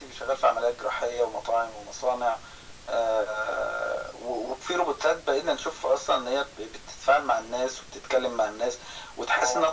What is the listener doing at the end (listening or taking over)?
listening